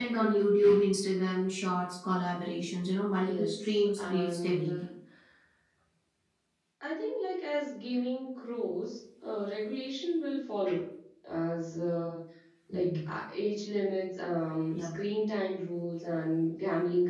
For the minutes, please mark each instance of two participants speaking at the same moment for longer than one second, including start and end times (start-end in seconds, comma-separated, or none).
3.1-4.8